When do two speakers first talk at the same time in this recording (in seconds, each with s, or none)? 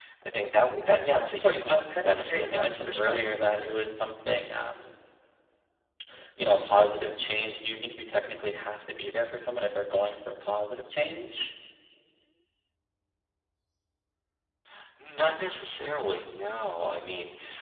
1.0 s